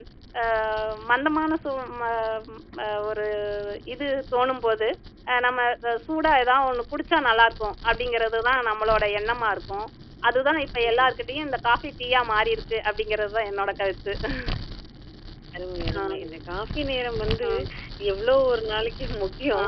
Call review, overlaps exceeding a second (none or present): none